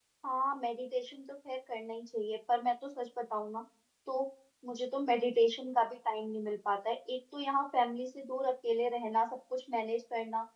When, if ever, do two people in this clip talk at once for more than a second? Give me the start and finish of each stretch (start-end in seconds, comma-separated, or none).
none